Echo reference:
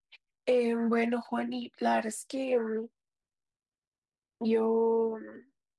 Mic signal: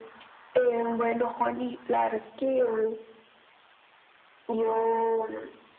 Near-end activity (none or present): none